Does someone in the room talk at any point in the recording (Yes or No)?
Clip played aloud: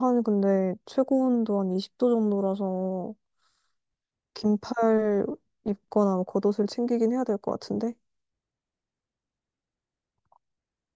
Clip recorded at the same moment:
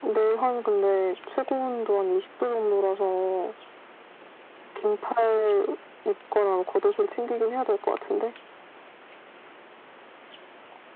No